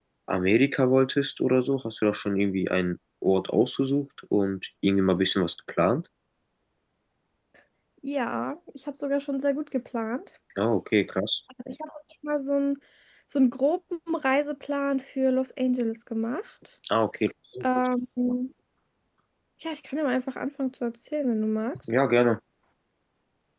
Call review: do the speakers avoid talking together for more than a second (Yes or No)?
Yes